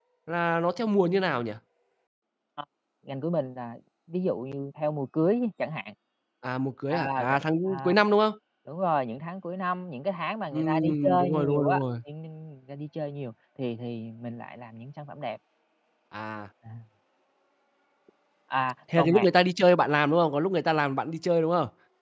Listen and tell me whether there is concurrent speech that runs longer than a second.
Yes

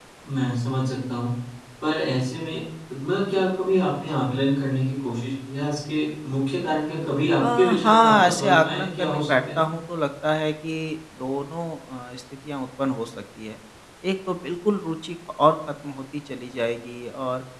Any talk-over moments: Yes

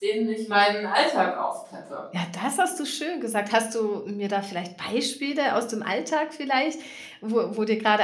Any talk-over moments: No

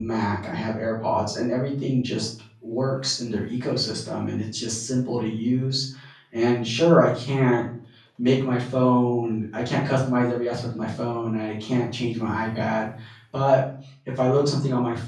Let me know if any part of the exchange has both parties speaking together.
No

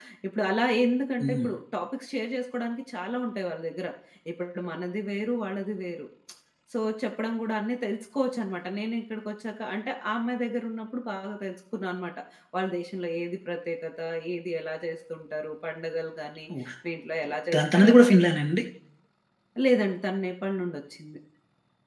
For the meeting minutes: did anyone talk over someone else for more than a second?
No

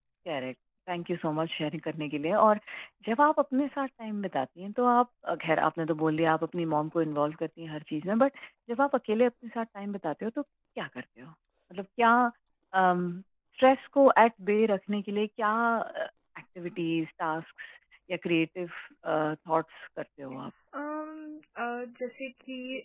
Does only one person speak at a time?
Yes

